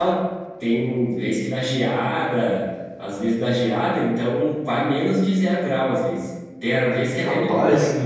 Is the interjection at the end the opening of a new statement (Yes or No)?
No